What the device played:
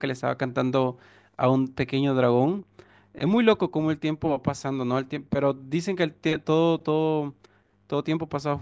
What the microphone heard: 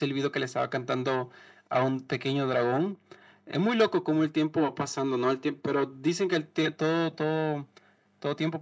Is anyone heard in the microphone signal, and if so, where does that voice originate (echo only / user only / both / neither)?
echo only